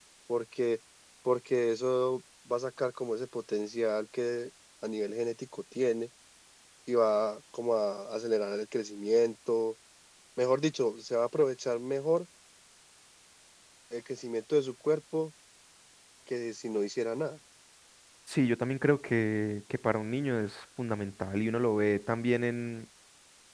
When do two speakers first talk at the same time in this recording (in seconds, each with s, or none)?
none